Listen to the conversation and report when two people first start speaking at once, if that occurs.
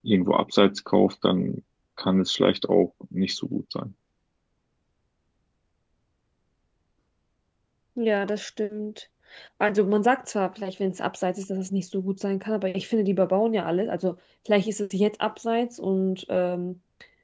none

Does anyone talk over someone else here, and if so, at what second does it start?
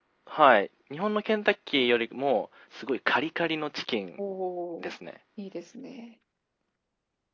none

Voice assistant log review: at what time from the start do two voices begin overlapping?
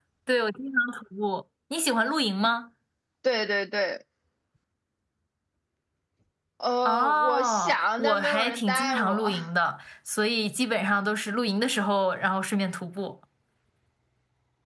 7 s

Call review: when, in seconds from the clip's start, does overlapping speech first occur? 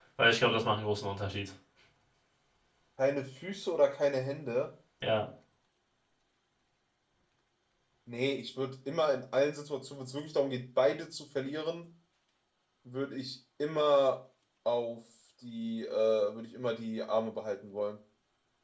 none

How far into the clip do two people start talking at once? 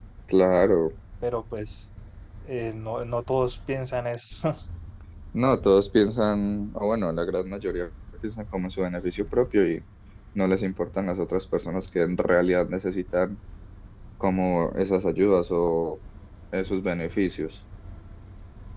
none

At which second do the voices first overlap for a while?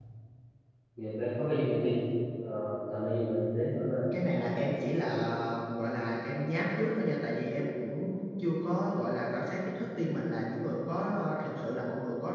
none

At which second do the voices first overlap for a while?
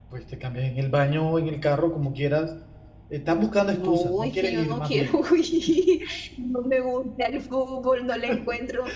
4 s

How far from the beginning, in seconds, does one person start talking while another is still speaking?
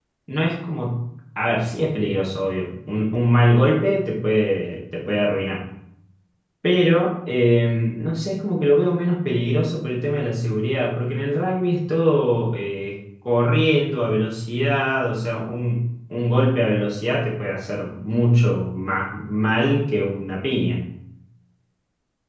none

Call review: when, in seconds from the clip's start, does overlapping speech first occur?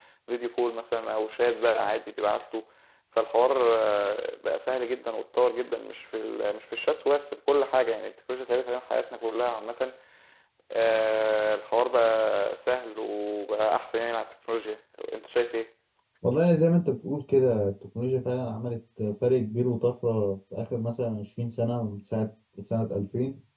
none

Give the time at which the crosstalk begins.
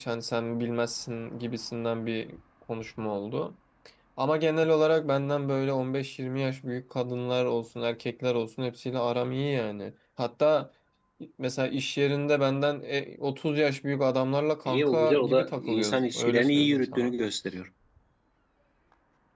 15 s

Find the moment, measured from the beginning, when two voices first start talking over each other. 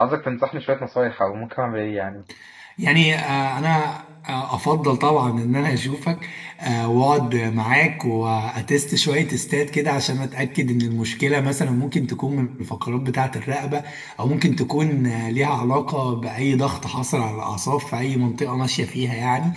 none

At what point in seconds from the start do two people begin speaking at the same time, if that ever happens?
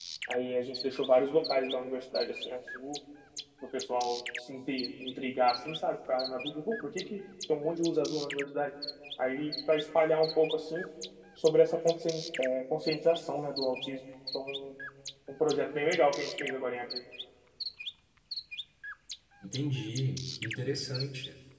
none

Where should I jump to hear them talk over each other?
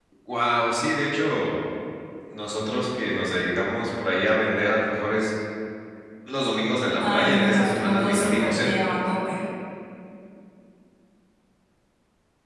7 s

